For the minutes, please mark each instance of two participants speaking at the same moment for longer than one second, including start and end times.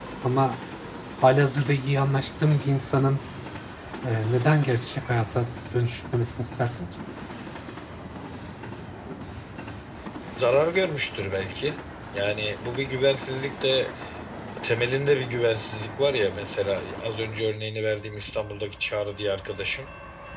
none

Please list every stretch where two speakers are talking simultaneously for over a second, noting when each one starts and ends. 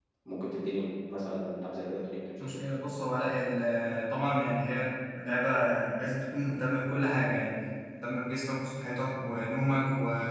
none

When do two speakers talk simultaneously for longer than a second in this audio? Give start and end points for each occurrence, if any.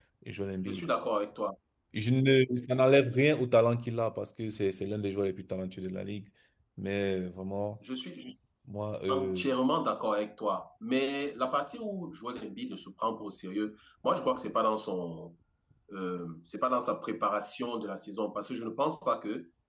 none

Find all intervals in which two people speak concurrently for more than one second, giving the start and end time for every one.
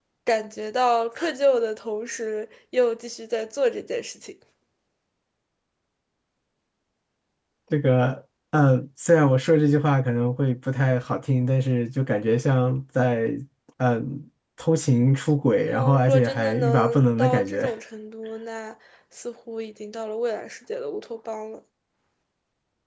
15.6-17.7

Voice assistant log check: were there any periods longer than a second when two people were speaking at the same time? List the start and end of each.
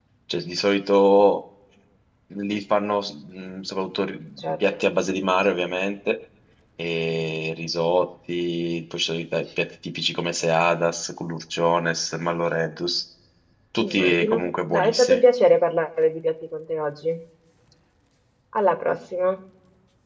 13.8-15.2

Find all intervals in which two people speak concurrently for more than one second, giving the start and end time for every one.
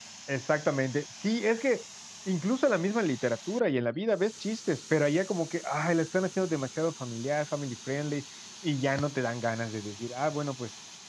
none

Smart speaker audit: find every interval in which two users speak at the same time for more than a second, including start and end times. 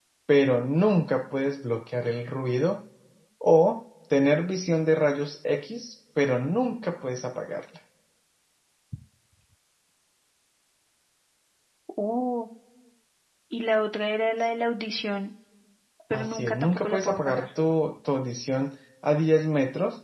16.1-17.5

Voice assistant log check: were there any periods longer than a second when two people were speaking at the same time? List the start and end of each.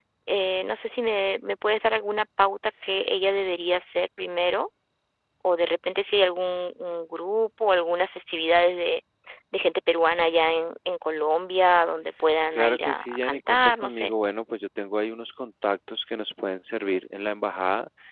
12.6-14.1

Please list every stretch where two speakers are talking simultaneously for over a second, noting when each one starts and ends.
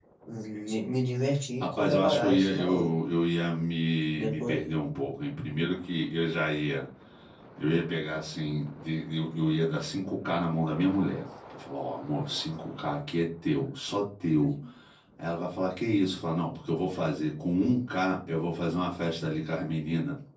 1.6-2.9

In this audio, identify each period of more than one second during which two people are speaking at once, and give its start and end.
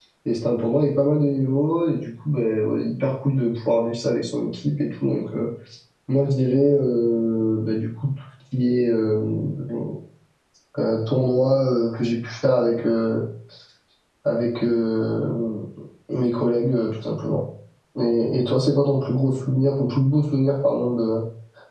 none

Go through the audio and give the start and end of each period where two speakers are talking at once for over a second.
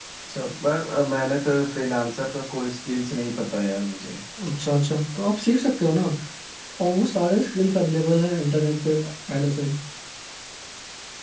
none

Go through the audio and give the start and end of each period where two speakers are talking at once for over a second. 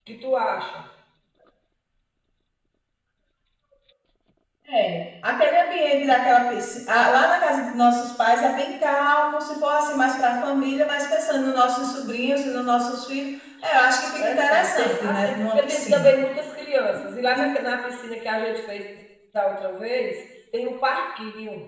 14.2-16.1

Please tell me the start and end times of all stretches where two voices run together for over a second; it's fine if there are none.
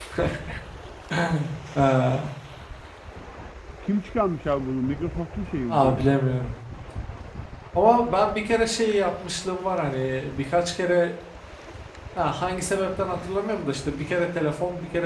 none

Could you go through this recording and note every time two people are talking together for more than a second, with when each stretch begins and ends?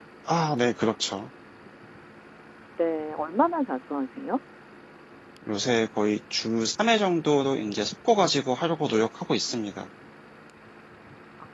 none

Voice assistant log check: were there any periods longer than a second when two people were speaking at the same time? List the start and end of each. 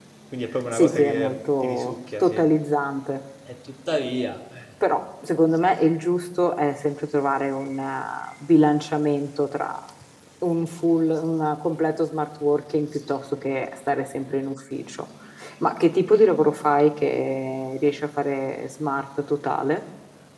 0.7-2.4

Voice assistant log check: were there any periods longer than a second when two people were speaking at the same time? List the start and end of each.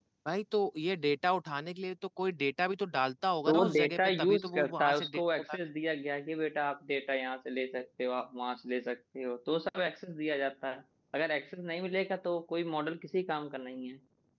3.5-5.6

